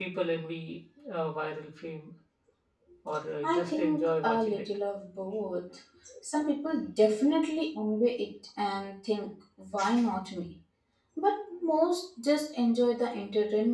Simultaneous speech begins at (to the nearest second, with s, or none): 3 s